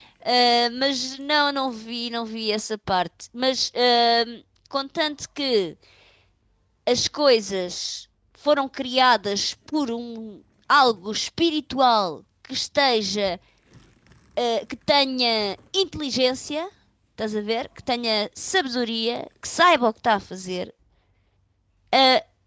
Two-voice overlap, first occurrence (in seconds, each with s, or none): none